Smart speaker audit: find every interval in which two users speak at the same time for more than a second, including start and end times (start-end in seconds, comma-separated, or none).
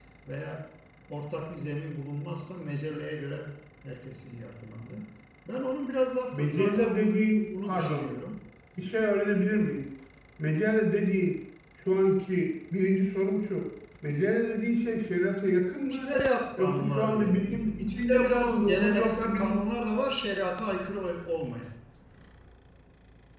6.3-8.1, 16.6-19.6